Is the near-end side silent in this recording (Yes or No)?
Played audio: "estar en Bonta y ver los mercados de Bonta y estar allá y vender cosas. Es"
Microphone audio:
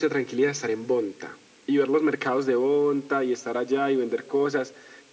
Yes